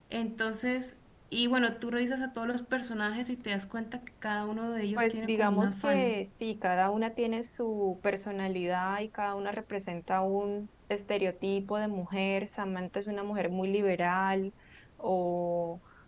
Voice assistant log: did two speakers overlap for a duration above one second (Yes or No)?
Yes